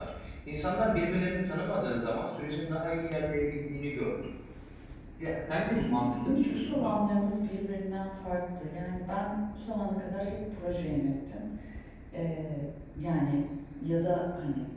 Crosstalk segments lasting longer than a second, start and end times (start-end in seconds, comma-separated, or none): 5.5-7.0